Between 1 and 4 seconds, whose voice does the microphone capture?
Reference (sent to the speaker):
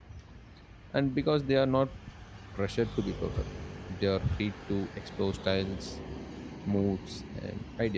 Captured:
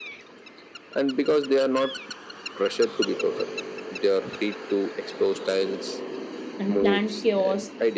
echo only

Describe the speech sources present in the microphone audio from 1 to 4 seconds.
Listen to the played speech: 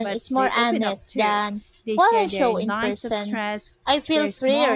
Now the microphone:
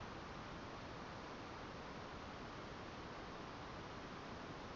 neither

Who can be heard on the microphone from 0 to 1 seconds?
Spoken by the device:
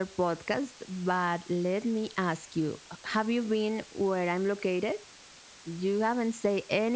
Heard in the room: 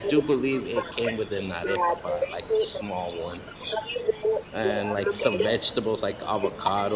both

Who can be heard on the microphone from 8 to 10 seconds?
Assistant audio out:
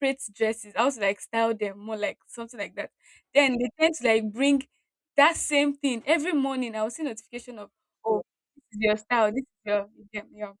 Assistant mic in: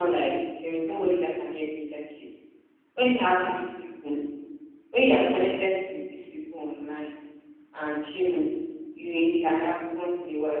user only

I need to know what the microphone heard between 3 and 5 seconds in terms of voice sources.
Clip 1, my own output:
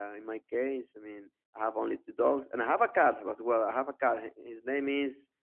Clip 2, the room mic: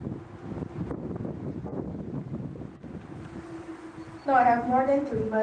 user only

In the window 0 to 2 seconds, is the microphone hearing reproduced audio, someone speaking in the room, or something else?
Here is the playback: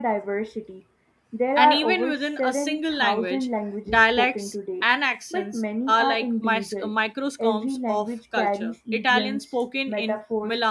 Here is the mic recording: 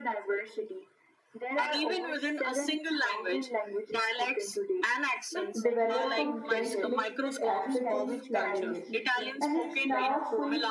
echo only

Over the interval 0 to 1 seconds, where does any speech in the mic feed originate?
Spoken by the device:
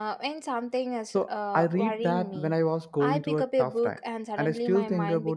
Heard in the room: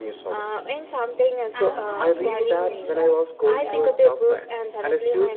echo only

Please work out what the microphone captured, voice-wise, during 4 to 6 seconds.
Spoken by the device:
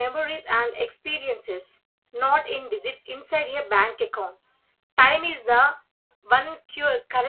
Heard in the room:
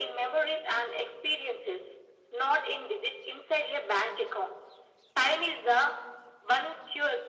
echo only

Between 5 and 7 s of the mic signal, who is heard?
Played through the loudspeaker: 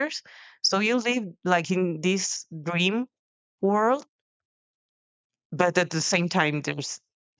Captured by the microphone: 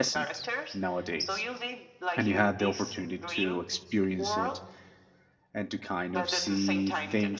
both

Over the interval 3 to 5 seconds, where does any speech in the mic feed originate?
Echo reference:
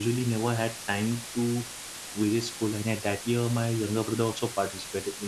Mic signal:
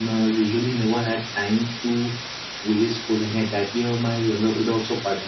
echo only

